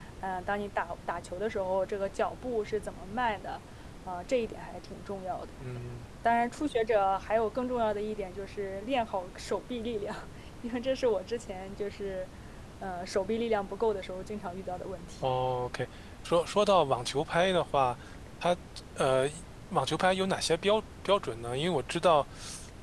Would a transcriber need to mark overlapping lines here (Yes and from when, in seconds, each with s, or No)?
No